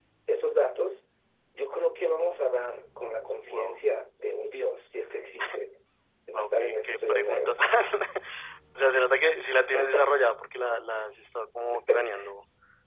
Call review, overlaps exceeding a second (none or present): present